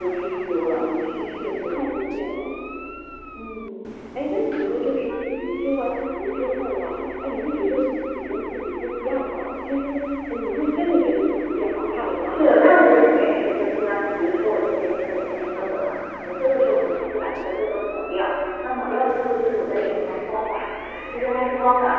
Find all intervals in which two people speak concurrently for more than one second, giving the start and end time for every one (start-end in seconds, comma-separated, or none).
none